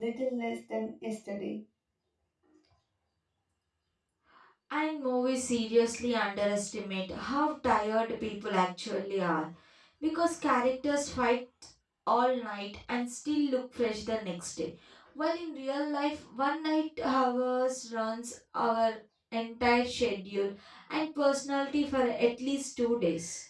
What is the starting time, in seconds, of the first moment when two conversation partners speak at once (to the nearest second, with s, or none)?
none